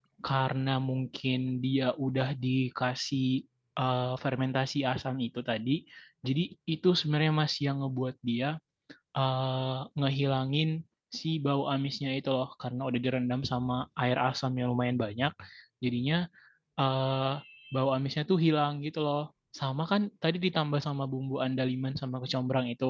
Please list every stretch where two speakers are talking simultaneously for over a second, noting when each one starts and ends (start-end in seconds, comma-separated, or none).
none